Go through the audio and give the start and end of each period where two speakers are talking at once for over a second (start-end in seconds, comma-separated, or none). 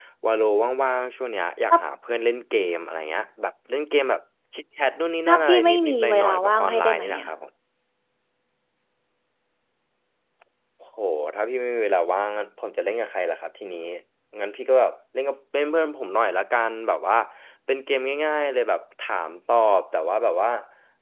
5.3-7.3